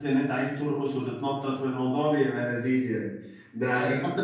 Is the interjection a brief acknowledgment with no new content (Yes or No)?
Yes